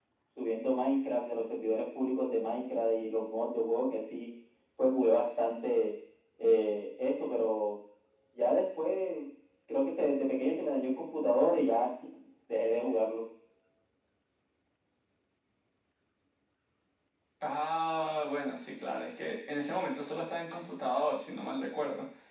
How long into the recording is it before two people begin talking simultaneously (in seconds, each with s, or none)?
none